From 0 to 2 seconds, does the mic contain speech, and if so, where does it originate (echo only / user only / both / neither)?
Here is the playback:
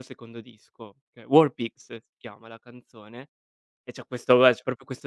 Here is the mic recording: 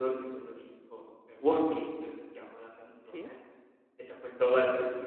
echo only